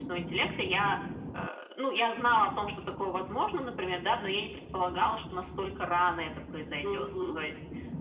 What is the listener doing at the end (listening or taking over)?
listening